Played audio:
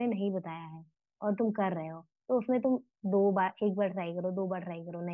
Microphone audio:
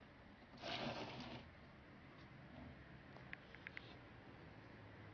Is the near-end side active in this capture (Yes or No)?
No